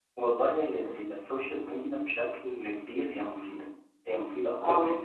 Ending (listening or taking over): listening